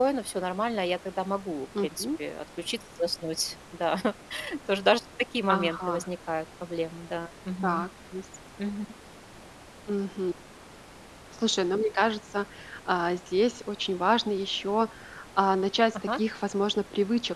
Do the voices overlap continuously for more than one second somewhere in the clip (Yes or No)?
No